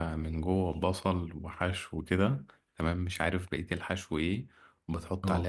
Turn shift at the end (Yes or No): No